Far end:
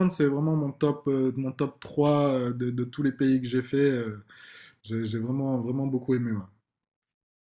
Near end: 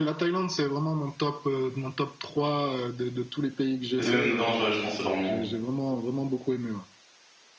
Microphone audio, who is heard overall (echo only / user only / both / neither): both